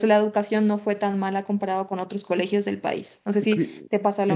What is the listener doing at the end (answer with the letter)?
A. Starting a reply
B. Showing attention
A